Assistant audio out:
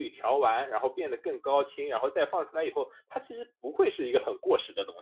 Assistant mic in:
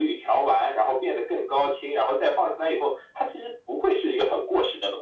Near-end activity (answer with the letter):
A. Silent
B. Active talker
A